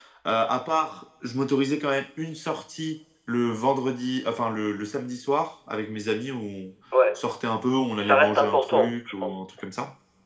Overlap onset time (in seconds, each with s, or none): 8.0 s